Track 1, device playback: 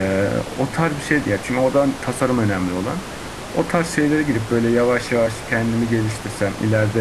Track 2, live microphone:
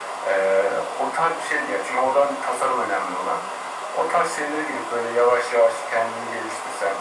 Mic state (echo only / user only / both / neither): echo only